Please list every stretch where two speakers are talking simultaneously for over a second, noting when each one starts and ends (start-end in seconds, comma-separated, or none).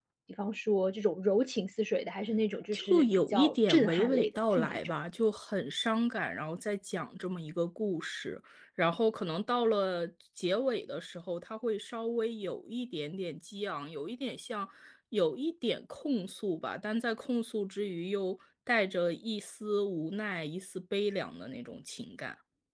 2.7-4.9